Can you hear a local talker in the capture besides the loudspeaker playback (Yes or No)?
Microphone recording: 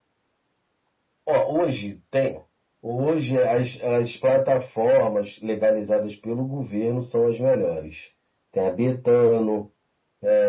No